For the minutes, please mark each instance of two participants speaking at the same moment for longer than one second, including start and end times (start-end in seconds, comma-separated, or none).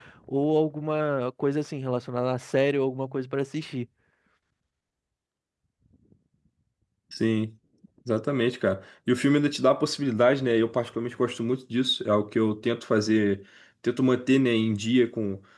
none